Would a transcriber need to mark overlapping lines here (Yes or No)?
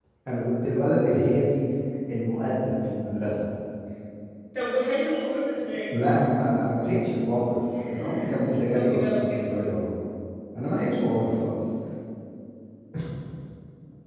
Yes